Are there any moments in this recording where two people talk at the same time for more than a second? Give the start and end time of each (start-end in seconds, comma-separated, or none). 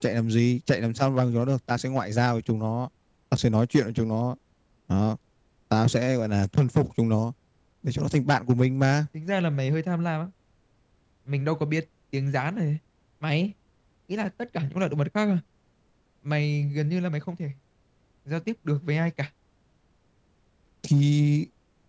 none